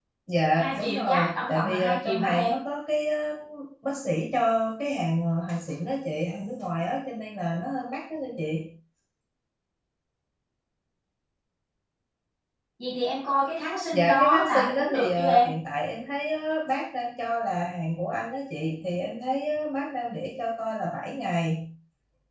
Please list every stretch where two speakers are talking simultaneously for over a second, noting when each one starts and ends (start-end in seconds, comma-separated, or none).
0.6-2.5, 13.9-15.5